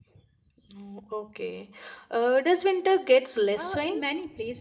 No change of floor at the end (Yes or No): No